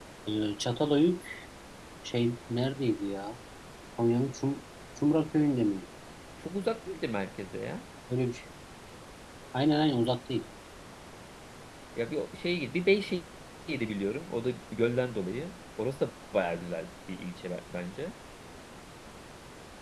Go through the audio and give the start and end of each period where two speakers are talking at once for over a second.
none

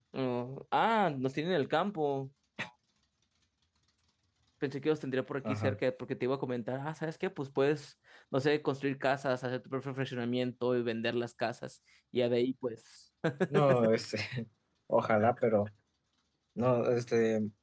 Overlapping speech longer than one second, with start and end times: none

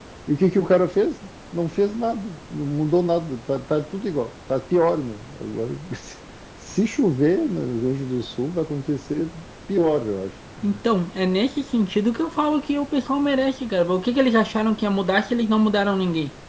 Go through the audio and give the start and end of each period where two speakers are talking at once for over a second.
none

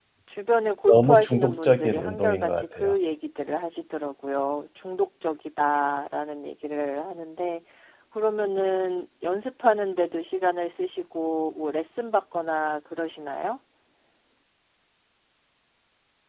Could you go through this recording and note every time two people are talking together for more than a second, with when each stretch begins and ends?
0.9-3.0

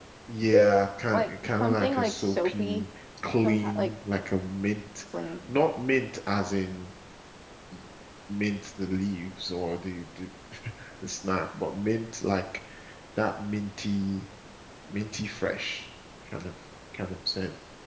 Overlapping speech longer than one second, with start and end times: 1.1-2.8

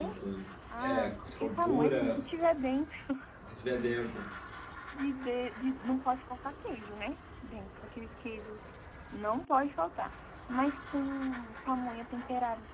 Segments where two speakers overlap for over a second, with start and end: 0.8-2.2

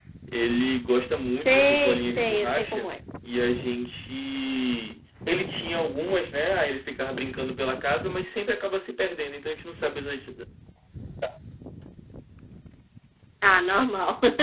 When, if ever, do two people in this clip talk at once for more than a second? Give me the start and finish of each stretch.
1.3-3.0

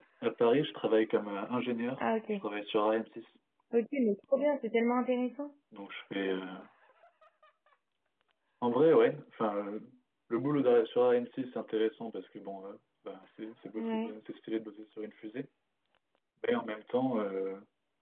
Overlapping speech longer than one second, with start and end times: none

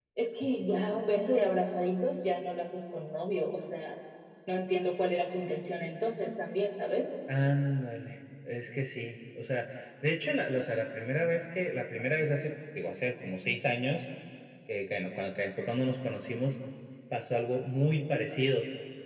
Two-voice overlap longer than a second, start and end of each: none

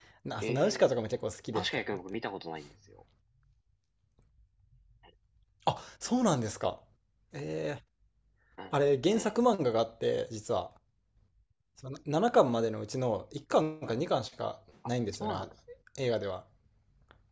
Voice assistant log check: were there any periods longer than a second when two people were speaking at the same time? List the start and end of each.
none

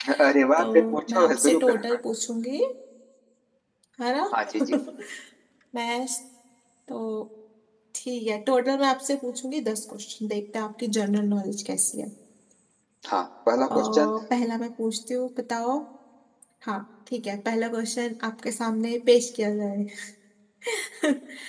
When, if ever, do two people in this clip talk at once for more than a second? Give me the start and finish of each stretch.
0.6-2.0

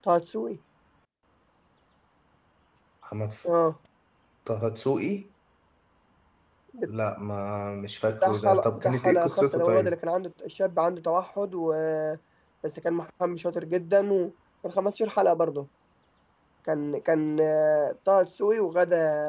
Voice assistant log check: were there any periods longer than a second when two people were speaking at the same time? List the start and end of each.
8.2-9.9

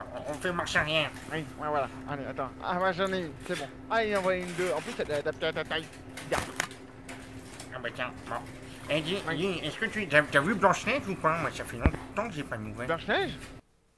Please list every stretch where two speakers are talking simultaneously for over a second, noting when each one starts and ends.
none

